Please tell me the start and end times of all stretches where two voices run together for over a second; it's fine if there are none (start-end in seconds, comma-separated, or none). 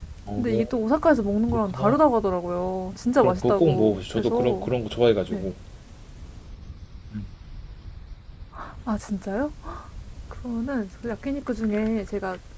3.2-4.6